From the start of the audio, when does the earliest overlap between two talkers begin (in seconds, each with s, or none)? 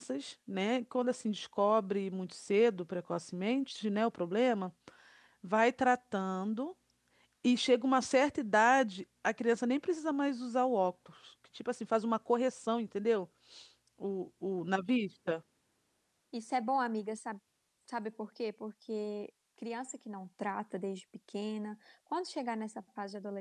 none